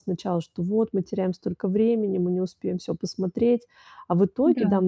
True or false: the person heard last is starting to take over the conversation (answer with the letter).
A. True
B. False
B